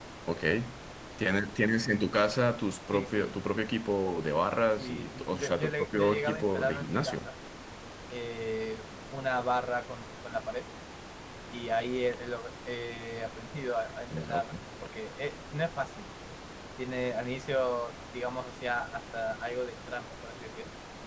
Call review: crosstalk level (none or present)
present